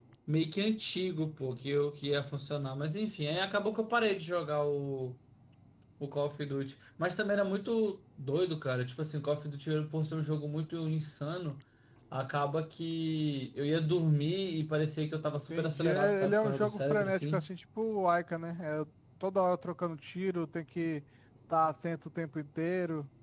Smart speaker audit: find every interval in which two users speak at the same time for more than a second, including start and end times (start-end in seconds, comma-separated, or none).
15.2-17.5